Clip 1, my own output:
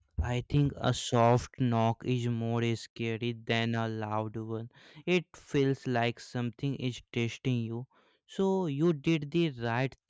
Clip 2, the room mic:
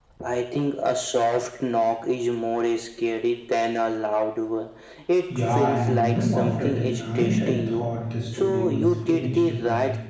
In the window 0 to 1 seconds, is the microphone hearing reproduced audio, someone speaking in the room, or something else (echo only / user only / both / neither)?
echo only